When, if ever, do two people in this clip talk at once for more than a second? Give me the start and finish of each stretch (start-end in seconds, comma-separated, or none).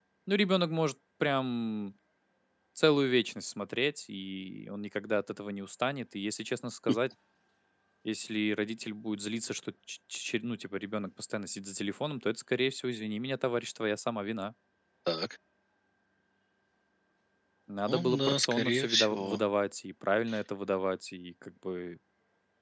17.9-19.4